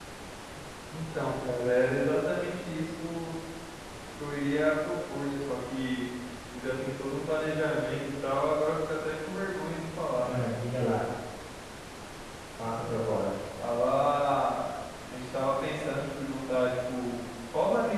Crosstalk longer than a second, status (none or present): none